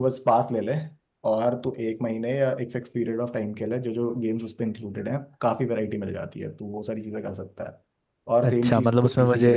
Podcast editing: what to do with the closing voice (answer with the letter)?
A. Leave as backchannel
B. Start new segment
B